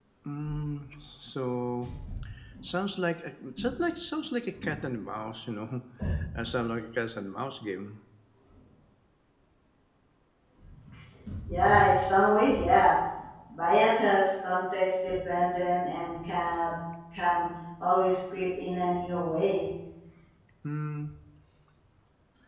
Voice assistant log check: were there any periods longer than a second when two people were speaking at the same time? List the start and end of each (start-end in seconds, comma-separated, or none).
none